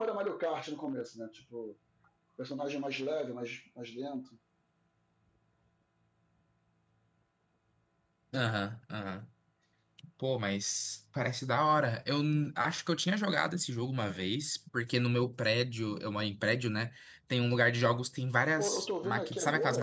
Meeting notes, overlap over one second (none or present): present